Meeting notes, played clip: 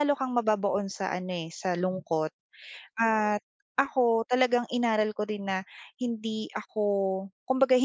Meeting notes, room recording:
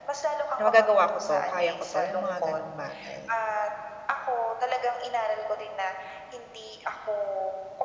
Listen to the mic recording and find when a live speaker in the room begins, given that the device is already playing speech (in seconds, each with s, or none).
0.6 s